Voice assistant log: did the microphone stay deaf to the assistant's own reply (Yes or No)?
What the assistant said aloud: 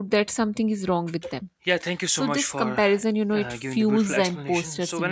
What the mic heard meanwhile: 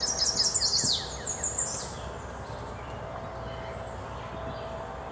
Yes